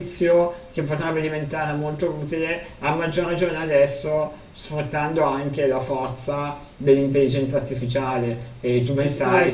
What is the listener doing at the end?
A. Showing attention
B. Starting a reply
B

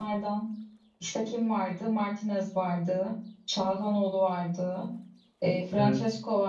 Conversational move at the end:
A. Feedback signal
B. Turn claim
A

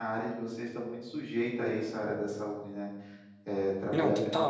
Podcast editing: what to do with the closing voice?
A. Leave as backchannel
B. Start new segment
A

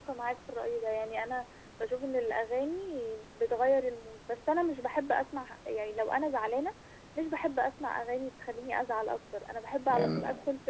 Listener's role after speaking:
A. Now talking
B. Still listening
B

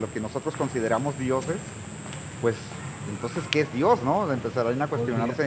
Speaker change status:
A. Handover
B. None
A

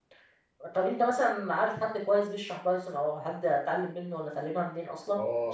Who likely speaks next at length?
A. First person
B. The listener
B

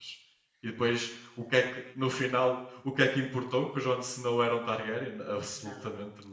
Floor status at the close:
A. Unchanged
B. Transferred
B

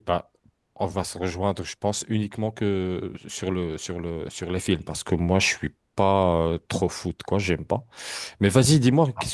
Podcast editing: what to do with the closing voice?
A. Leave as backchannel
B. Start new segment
A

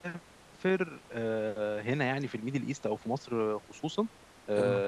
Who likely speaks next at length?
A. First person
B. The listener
A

